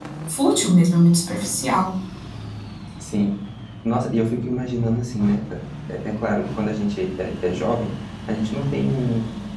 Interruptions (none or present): none